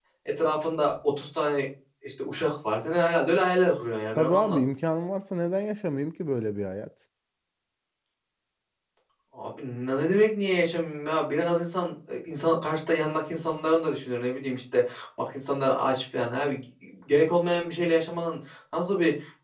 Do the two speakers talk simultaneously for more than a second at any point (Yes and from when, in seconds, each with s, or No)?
No